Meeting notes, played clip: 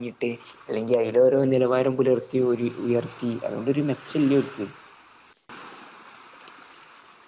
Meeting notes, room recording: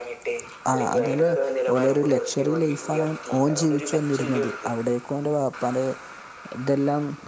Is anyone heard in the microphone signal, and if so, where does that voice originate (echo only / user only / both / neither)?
both